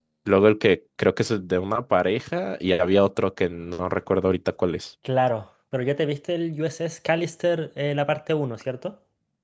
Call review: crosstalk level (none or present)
none